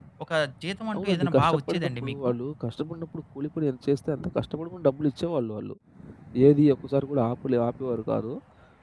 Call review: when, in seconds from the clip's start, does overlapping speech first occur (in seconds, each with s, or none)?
1.0 s